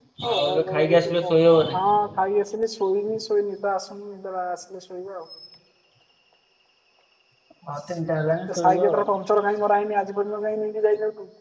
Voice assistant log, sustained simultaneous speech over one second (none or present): present